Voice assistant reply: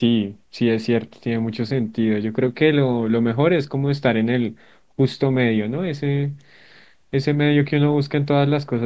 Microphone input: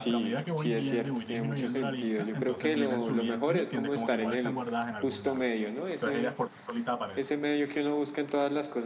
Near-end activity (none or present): present